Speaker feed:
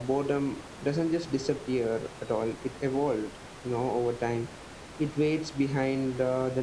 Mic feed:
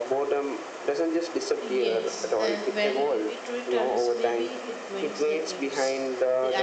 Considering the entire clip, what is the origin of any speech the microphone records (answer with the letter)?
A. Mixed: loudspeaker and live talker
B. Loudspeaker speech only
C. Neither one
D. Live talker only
A